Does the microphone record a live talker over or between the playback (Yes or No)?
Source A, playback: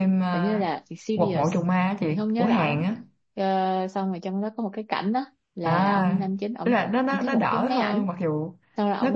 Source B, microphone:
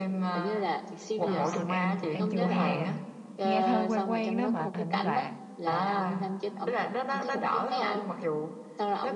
Yes